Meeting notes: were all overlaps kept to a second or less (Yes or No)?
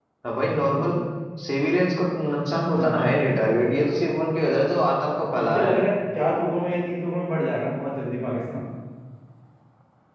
Yes